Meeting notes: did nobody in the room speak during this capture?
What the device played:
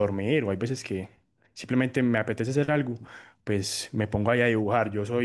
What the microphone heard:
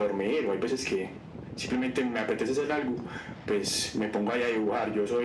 Yes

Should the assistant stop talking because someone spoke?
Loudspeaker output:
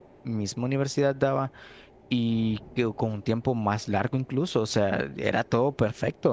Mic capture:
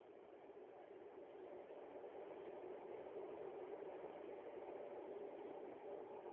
No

